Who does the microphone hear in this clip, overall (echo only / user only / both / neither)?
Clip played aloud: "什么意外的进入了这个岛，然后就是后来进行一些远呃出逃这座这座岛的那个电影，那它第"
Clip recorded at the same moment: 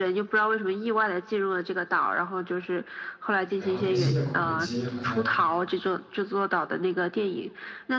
both